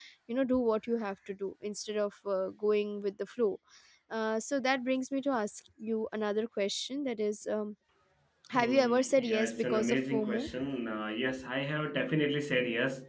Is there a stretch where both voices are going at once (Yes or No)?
Yes